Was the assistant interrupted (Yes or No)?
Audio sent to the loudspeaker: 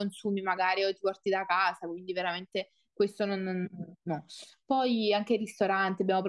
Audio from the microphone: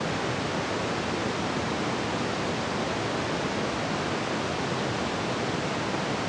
No